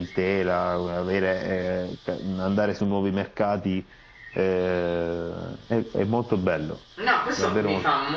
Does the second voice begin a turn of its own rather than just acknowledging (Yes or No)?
Yes